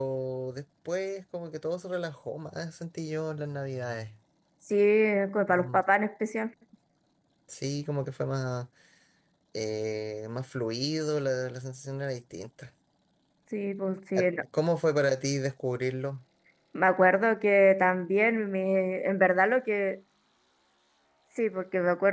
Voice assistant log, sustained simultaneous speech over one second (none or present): none